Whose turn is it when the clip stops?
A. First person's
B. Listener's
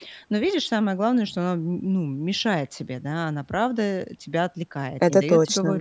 A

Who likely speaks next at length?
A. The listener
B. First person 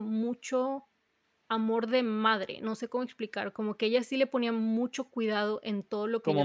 B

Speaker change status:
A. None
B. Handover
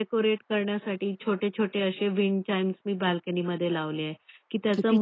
A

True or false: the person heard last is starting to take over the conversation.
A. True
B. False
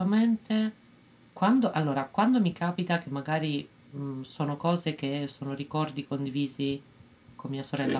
B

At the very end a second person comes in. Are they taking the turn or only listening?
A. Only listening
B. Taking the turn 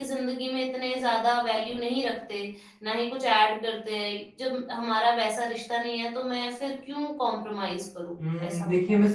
B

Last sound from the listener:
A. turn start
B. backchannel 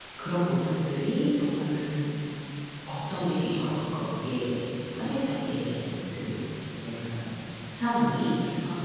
B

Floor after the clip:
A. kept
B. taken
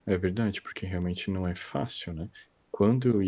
A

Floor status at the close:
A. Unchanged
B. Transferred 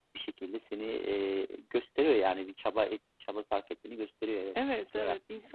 B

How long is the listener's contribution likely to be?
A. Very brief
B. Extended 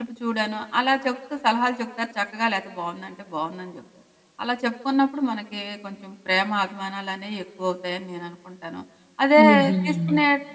A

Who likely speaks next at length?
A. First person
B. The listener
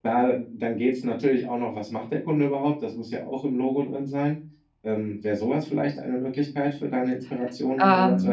B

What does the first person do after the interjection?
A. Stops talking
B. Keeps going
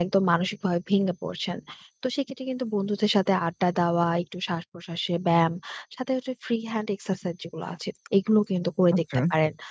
B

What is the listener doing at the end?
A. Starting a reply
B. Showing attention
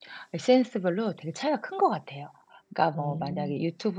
B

